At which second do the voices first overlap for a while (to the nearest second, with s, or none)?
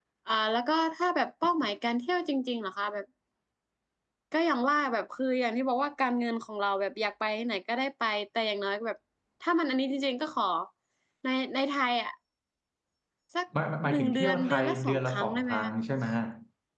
14 s